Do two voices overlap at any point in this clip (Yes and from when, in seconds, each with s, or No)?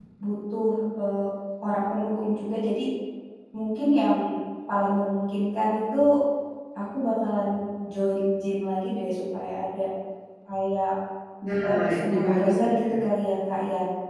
Yes, from 11.6 s